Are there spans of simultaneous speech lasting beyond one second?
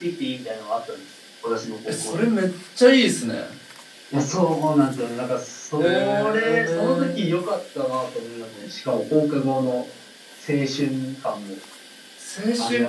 Yes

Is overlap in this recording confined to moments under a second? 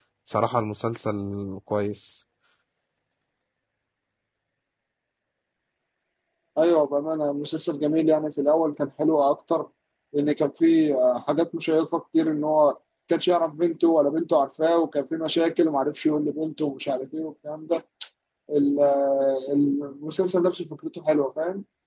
Yes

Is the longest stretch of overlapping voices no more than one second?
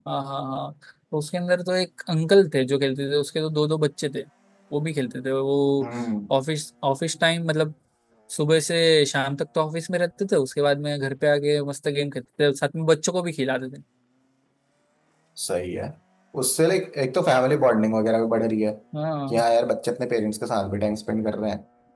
Yes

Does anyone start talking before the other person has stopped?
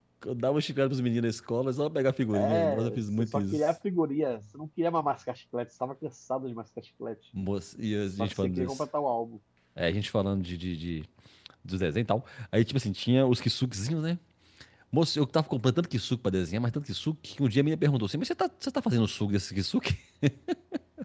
Yes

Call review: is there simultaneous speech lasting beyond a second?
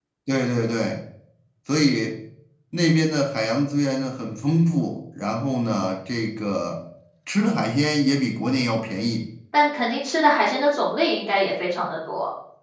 No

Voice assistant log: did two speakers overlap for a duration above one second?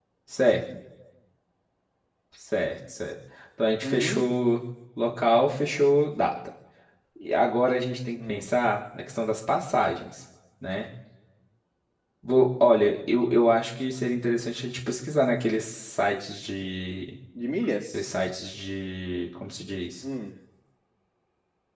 No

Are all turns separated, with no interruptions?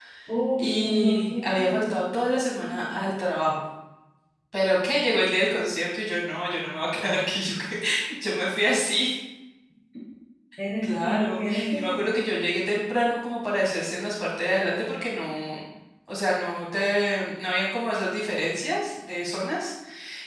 No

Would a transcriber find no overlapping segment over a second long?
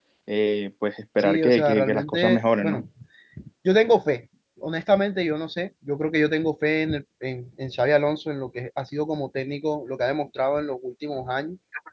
No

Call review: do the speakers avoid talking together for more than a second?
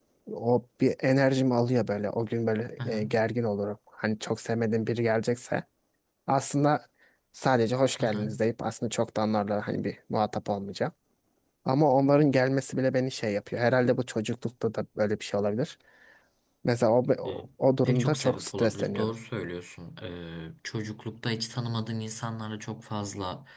No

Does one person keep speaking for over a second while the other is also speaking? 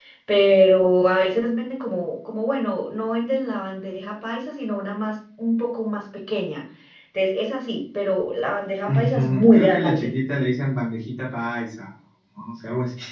Yes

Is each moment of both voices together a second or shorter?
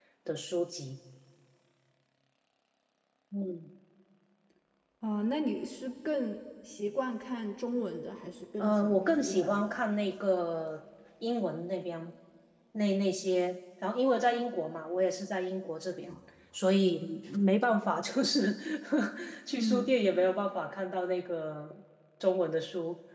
No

